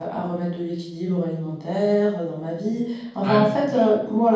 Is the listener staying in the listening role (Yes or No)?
Yes